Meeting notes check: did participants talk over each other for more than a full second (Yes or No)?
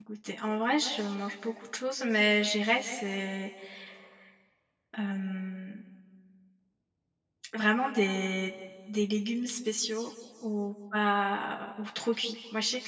No